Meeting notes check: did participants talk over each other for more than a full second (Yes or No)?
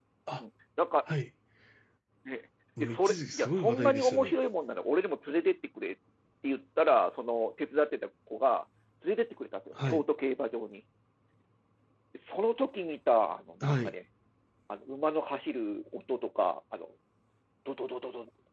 Yes